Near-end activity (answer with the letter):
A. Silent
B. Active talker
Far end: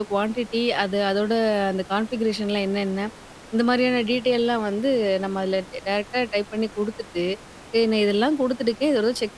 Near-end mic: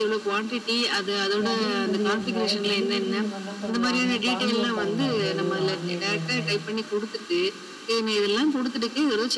B